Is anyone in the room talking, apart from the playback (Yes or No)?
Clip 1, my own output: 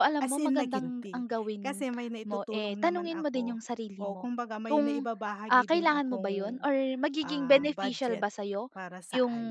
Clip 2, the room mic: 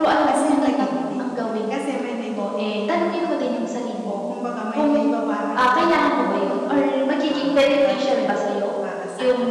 No